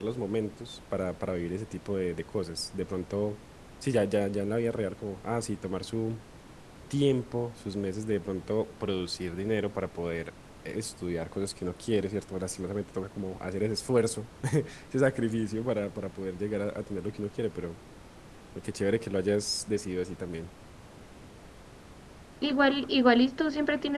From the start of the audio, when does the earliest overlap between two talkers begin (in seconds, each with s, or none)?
none